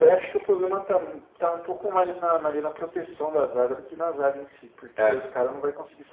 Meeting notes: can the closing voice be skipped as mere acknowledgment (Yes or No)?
Yes